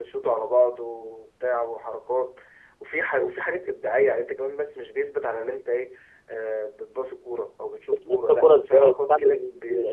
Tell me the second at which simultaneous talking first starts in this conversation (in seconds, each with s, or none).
7.9 s